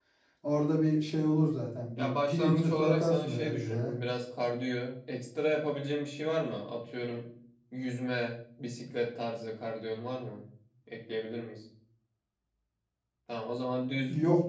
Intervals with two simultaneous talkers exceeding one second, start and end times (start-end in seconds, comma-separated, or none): 2.0-3.9